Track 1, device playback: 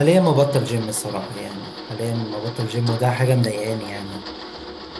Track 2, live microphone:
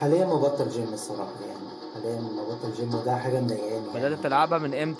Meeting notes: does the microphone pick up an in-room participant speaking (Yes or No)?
Yes